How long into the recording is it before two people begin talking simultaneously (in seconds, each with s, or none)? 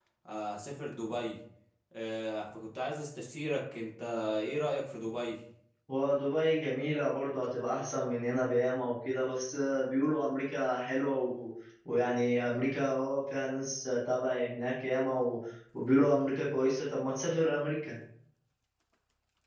none